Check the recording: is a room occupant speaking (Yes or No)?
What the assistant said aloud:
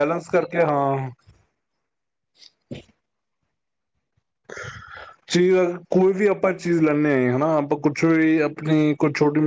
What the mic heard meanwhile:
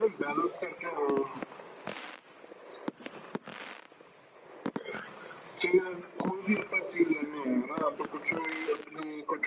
No